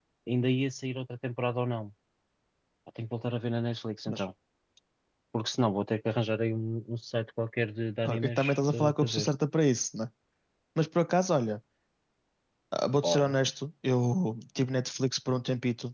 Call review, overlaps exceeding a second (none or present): present